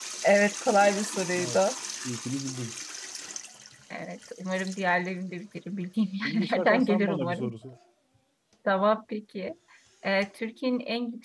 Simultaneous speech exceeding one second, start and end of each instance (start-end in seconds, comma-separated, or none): 6.2-7.5